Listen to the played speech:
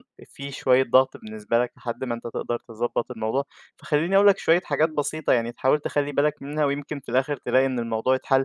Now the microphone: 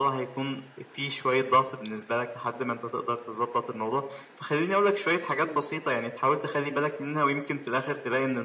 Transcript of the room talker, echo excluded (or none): none